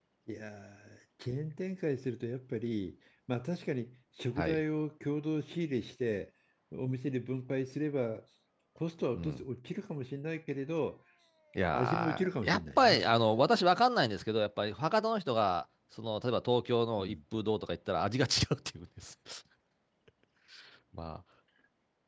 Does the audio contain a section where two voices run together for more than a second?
Yes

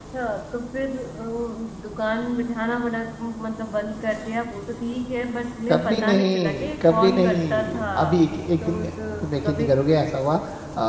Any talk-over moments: Yes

